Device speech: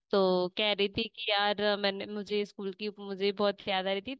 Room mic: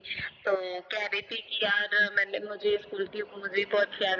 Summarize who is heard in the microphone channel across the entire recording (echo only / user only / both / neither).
echo only